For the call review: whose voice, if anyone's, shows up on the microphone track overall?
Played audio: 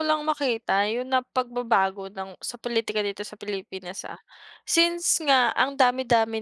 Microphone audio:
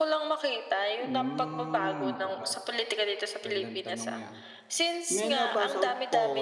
both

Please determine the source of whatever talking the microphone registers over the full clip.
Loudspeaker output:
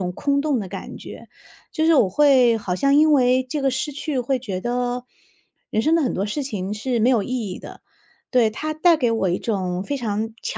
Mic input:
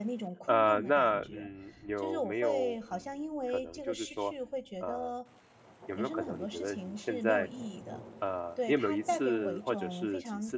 both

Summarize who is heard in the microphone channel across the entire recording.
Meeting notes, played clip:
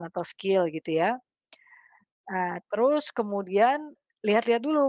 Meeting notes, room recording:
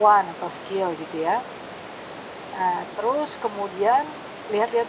echo only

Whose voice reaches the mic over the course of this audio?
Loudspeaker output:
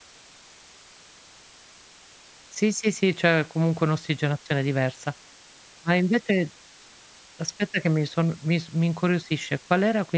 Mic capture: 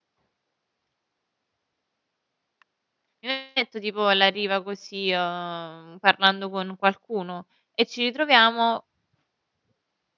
user only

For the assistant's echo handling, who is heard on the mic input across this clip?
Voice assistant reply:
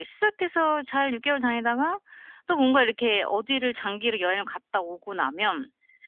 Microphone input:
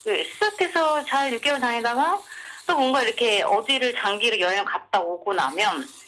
echo only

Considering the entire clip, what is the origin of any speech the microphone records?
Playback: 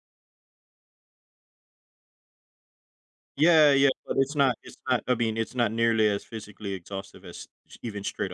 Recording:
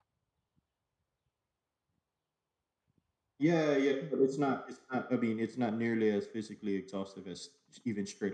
both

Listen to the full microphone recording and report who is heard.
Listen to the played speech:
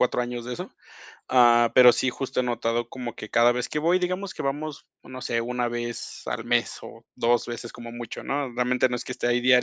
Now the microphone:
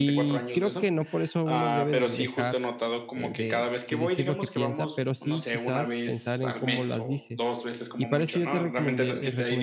both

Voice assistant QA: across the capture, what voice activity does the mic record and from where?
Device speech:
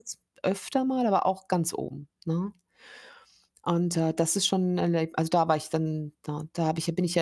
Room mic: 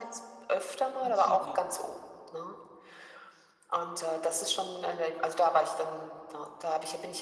both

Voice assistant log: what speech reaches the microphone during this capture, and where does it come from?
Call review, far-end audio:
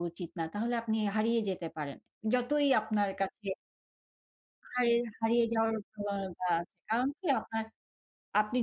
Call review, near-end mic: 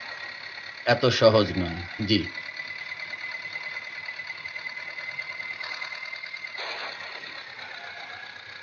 user only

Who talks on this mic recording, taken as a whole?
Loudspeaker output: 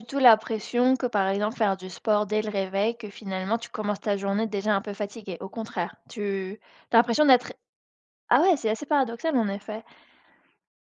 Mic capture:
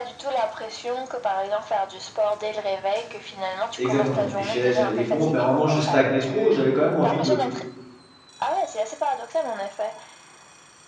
both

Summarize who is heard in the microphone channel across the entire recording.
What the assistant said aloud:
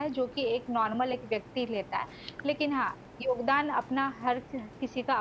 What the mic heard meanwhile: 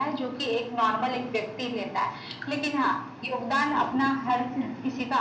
echo only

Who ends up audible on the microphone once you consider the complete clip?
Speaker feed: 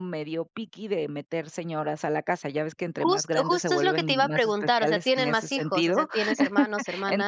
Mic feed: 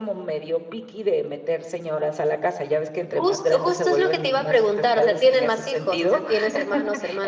echo only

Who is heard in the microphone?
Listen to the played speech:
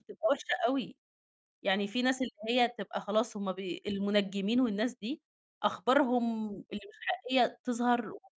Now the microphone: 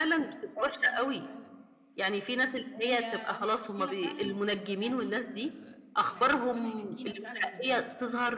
both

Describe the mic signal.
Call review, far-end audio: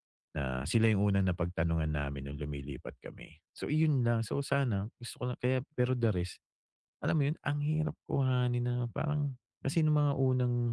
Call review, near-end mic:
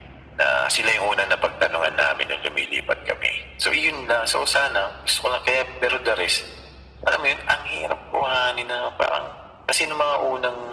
echo only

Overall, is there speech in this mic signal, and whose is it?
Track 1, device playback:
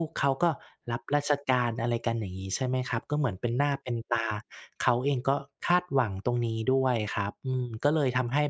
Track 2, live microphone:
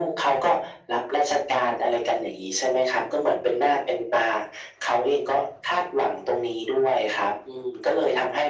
echo only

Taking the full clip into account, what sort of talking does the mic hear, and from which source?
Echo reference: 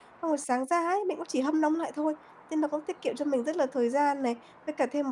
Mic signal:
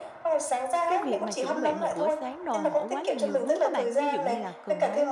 both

